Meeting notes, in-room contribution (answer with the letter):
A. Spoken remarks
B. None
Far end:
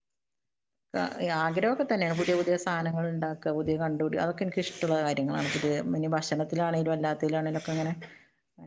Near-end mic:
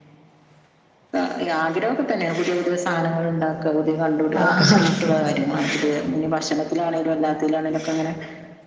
A